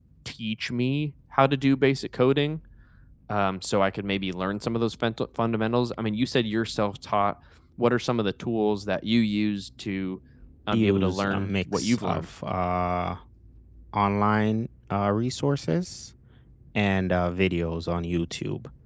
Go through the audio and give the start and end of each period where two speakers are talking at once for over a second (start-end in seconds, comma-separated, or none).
10.7-12.2